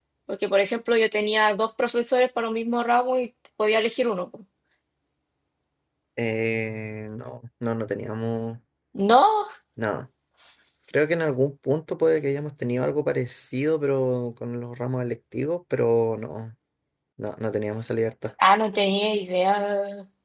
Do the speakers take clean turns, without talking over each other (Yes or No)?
Yes